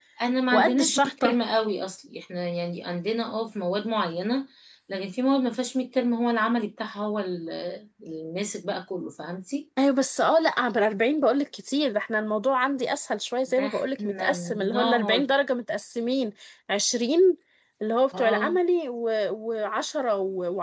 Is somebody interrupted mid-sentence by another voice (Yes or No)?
Yes